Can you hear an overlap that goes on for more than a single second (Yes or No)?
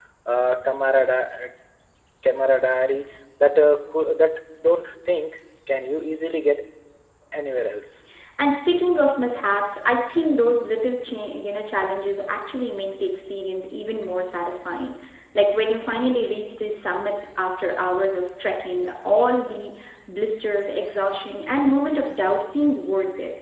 No